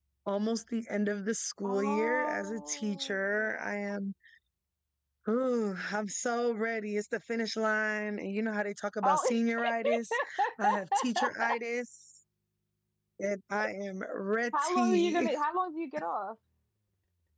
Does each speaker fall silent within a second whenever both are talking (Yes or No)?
No